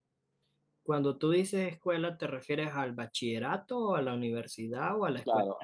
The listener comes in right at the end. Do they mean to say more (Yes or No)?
Yes